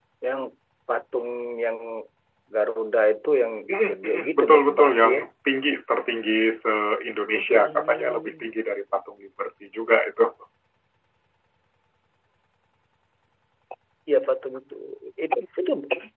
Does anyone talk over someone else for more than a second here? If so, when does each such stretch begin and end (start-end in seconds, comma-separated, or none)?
3.9-5.2, 7.3-8.5